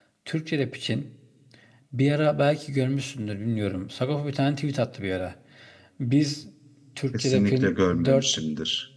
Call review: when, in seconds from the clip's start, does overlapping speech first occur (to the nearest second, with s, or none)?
7 s